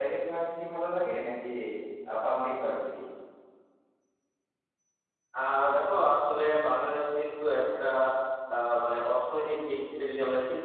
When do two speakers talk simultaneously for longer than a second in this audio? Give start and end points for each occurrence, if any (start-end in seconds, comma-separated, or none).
none